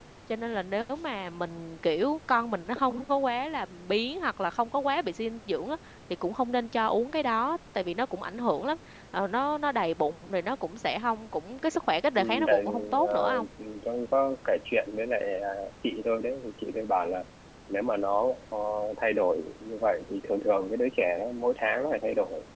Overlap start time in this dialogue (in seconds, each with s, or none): 12.2 s